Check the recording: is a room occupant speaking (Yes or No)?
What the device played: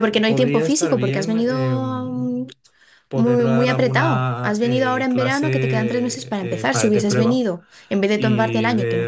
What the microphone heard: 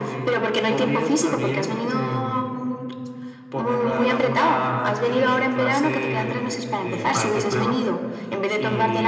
No